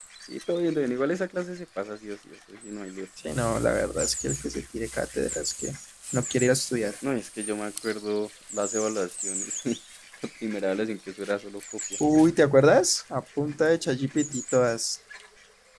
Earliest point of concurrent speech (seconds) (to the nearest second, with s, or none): none